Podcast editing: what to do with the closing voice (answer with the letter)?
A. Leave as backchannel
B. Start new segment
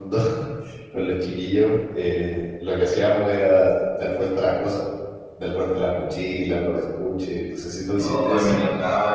B